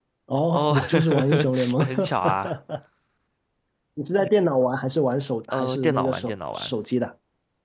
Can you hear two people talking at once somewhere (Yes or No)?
Yes